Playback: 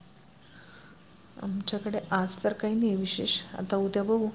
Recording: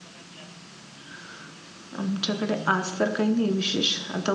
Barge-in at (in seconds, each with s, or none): none